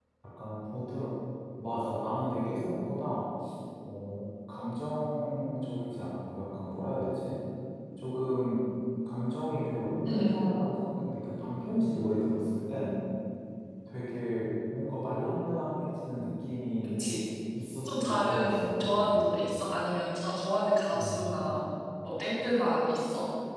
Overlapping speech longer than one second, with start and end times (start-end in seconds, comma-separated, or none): 17.9-19.3